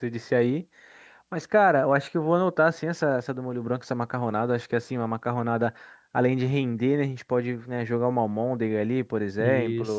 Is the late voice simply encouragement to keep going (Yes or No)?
Yes